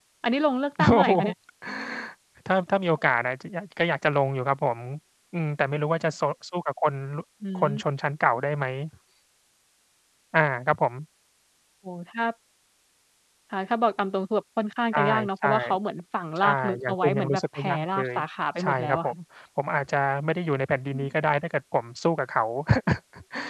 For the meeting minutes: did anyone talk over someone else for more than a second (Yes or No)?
Yes